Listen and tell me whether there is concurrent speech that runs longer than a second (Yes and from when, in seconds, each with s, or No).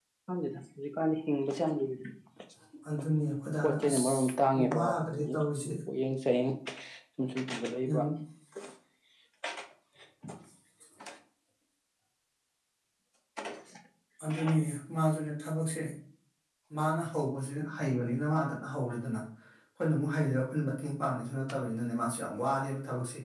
Yes, from 3.6 s